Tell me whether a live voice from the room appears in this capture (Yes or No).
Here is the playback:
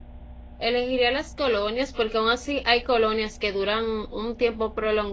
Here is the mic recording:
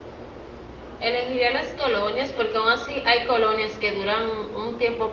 No